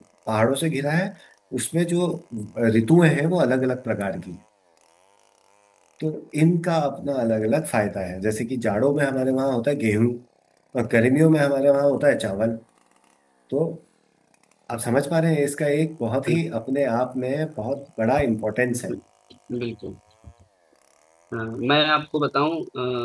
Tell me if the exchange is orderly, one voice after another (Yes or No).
Yes